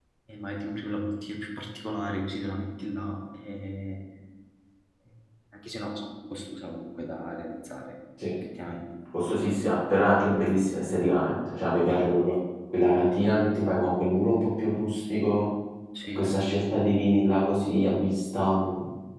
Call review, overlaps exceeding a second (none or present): none